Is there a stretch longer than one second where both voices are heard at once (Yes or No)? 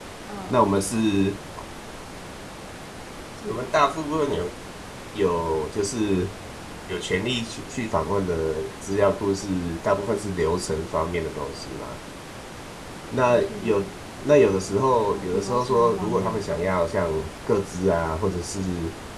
Yes